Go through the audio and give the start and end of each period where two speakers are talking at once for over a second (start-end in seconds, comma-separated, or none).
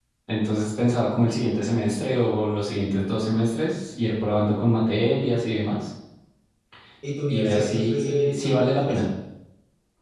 7.3-9.0